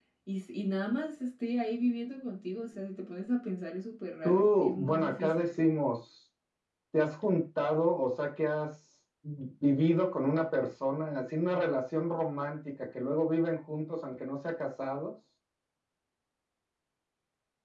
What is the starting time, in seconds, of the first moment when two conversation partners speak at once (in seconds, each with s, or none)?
4.2 s